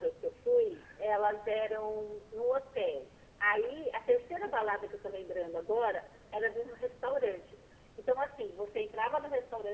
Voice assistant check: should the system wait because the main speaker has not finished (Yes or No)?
Yes